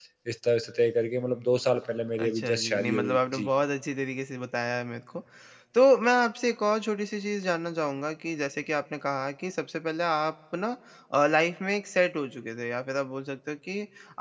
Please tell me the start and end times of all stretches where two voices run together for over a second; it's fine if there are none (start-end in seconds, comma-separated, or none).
2.2-3.5